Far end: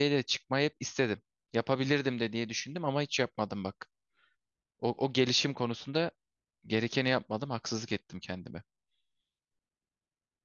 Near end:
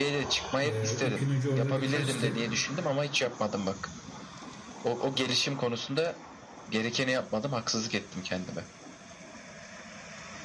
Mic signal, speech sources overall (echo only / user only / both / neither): both